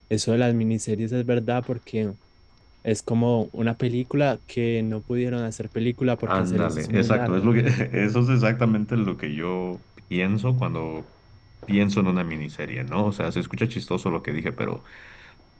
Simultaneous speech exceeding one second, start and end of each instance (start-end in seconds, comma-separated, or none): 6.3-7.5